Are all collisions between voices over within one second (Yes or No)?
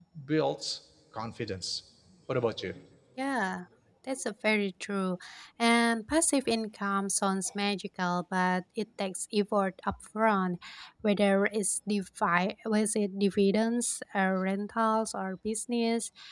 Yes